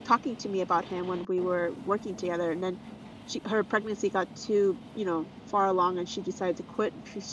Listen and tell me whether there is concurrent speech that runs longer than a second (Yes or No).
No